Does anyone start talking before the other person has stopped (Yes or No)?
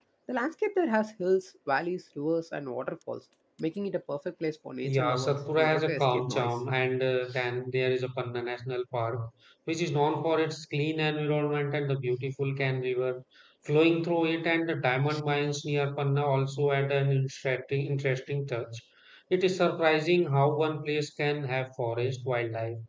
Yes